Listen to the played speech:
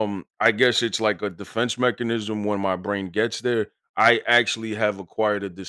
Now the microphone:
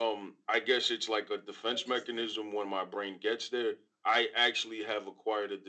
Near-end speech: present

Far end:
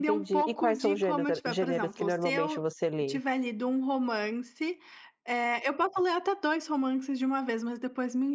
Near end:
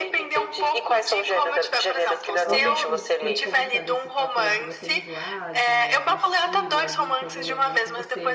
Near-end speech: present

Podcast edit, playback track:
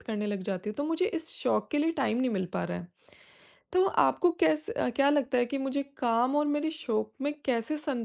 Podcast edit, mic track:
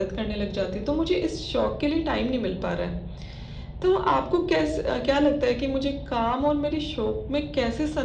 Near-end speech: none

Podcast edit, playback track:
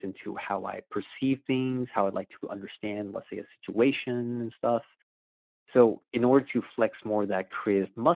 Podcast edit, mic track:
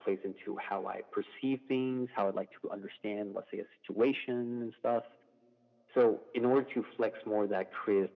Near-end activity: none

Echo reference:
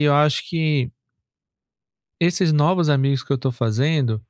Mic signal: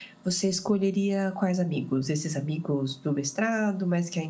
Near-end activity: present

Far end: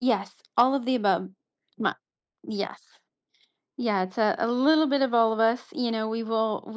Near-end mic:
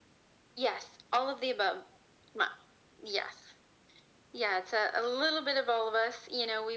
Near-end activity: none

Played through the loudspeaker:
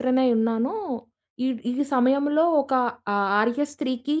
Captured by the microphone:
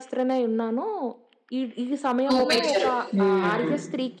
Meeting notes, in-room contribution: present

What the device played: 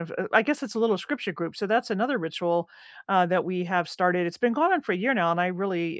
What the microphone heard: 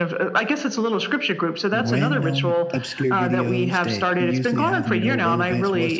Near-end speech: present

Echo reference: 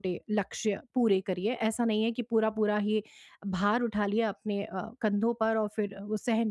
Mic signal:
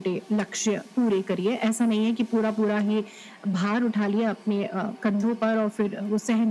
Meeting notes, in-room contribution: none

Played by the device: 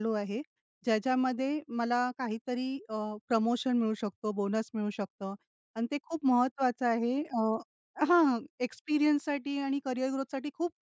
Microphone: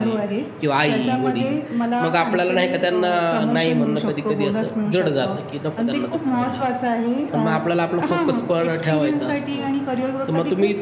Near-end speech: present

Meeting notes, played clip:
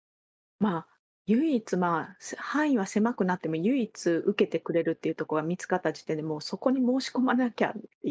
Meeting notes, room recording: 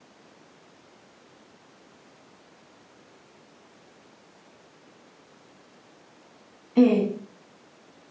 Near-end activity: present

